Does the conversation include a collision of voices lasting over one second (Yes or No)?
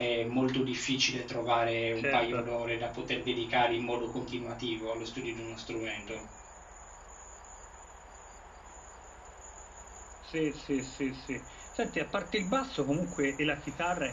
No